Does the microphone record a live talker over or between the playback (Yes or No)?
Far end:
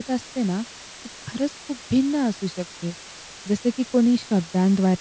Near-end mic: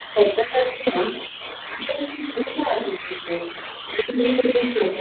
No